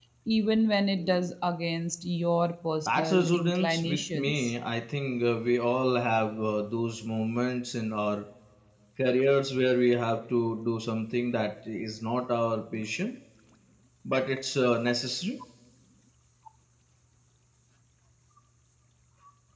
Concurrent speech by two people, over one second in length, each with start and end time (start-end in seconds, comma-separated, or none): 2.9-4.5